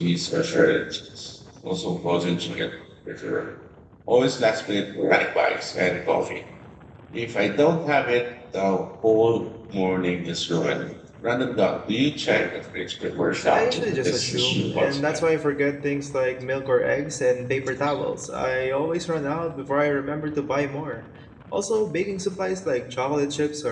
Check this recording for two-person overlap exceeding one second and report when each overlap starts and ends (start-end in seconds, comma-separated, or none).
13.5-15.2